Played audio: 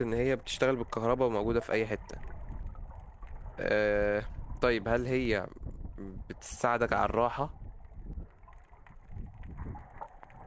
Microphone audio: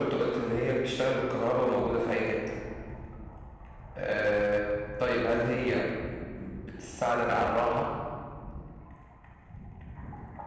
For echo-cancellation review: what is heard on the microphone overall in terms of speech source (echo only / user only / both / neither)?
echo only